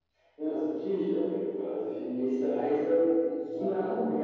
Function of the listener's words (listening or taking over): taking over